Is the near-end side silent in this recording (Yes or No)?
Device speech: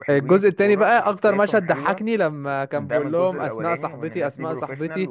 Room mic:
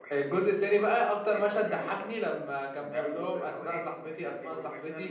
Yes